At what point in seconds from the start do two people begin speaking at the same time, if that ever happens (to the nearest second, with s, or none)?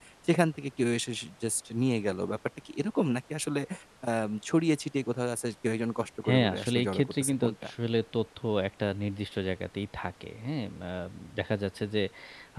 6 s